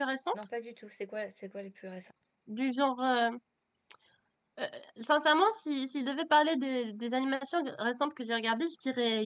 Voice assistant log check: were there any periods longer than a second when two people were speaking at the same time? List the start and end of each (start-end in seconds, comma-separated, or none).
none